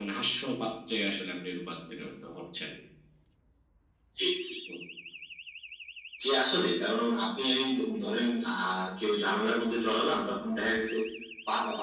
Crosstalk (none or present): none